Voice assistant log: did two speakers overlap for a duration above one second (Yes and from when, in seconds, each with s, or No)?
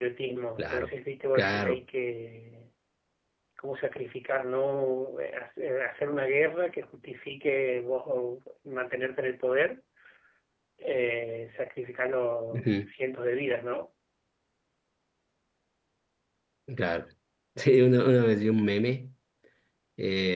No